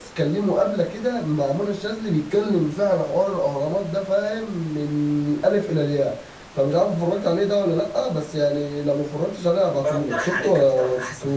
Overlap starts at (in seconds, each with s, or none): 9.8 s